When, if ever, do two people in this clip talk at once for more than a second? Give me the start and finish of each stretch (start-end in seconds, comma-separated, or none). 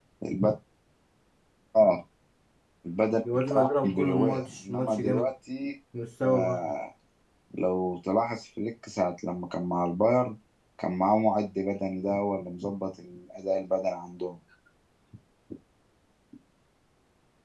3.3-5.3